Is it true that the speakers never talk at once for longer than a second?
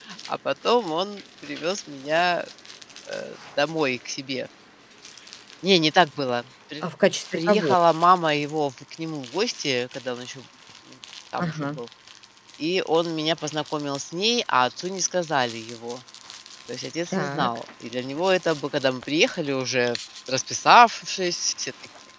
Yes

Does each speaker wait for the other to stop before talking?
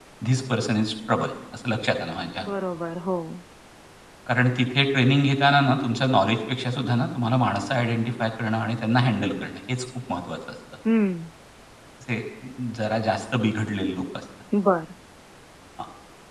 Yes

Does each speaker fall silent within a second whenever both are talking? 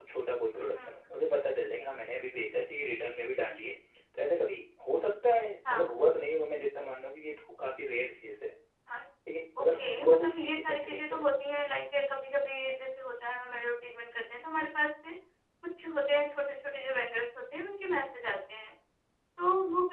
No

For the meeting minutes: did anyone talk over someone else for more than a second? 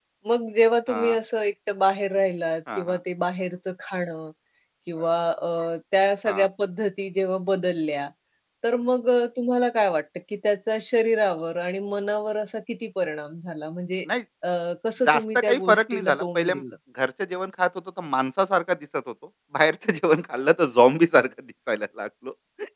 Yes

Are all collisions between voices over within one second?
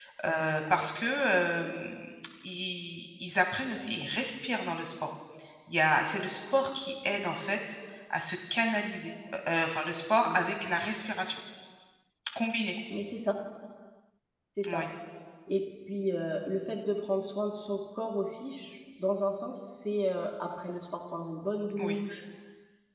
Yes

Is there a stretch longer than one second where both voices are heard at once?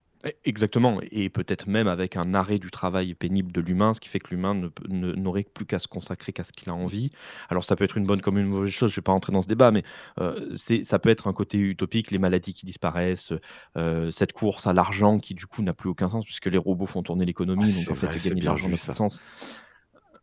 Yes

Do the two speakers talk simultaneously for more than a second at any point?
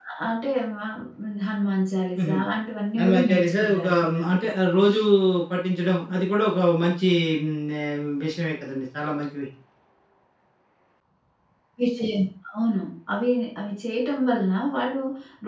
Yes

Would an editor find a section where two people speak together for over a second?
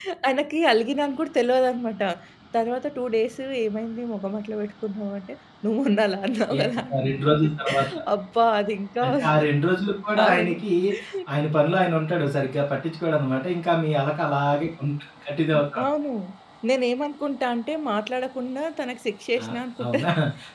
No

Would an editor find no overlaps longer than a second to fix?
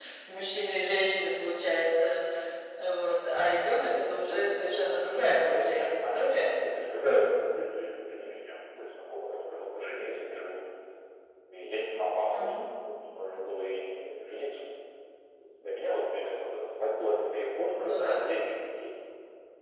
No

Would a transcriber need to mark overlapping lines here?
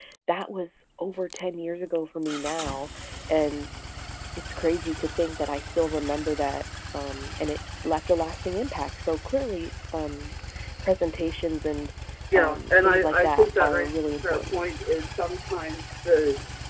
Yes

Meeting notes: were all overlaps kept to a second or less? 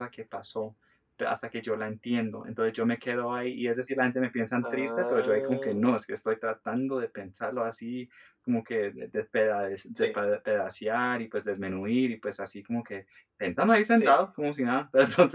No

